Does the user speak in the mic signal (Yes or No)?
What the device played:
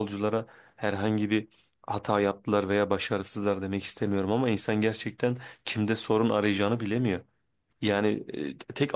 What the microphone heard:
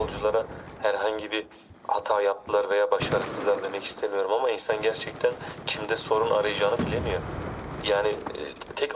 No